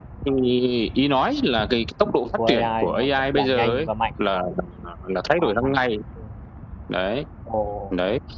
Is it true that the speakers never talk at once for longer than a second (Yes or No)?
No